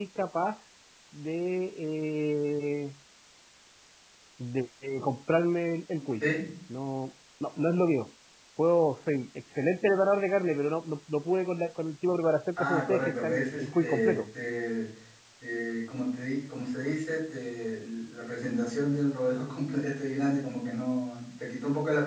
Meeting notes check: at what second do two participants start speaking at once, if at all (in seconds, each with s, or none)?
12.6 s